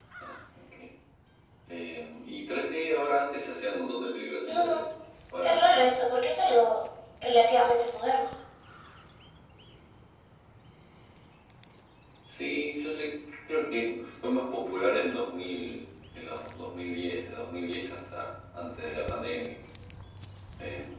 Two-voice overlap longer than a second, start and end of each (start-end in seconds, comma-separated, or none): none